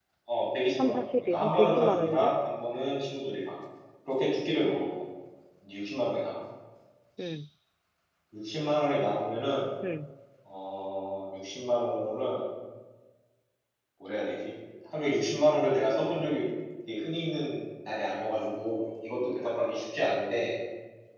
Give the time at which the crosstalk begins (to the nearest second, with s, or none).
1 s